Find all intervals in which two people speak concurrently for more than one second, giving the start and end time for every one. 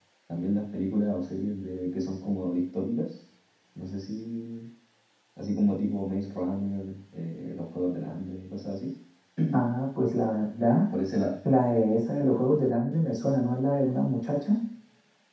none

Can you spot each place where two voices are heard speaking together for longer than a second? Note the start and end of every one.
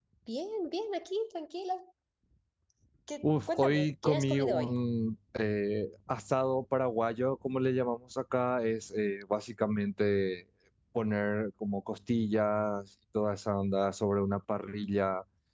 3.2-4.7

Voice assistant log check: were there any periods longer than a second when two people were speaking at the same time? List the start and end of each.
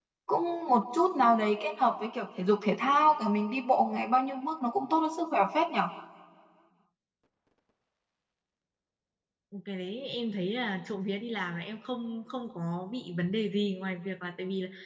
none

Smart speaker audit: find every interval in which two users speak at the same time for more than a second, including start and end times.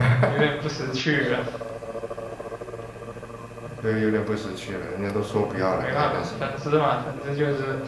5.3-6.5

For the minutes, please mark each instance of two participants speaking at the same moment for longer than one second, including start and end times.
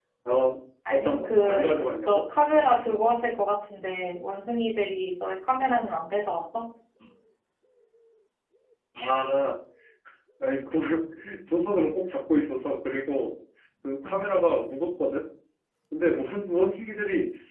0.9-2.2

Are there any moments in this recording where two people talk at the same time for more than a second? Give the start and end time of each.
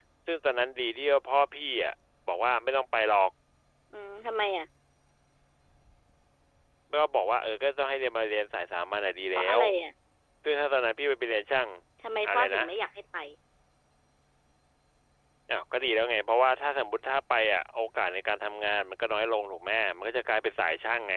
none

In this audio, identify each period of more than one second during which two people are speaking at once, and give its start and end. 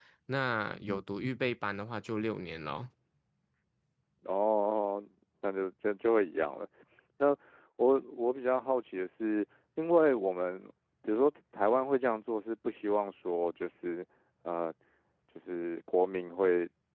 none

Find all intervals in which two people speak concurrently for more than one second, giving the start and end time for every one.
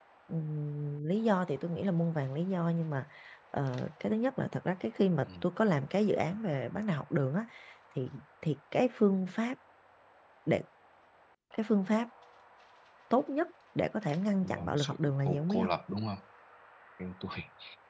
14.4-15.7

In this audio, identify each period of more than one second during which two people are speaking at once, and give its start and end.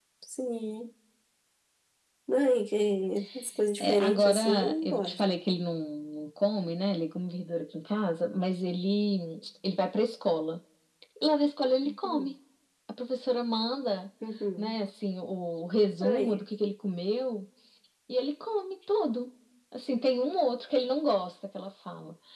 3.8-5.2

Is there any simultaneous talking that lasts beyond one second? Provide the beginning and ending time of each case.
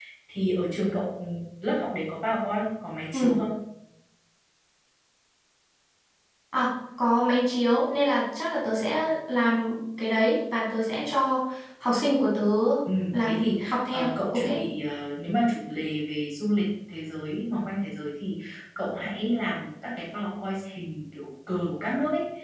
13.2-14.4

